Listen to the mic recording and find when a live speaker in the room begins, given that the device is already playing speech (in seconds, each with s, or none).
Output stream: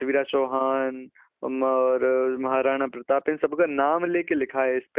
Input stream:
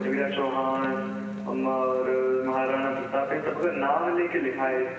none